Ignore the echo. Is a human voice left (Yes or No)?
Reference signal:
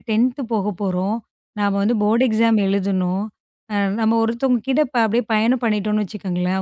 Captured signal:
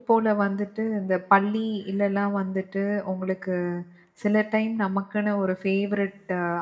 Yes